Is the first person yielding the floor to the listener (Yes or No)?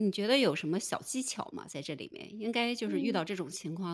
No